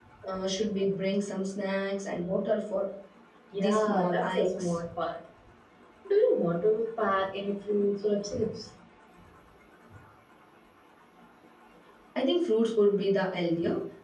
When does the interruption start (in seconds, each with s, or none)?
3.5 s